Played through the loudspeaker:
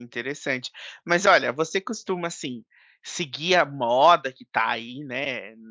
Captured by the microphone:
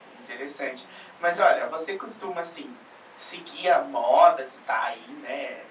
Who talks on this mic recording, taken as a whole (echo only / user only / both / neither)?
echo only